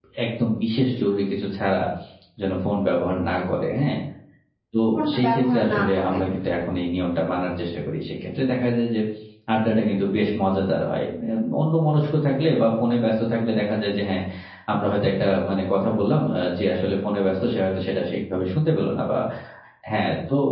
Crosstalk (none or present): present